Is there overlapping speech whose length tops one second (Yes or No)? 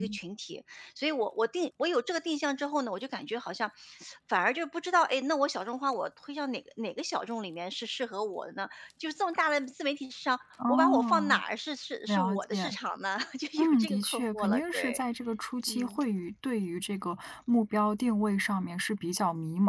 Yes